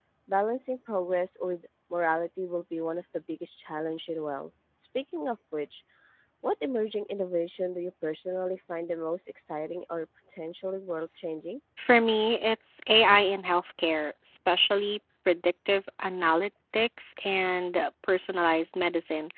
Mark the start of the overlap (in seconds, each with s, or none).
none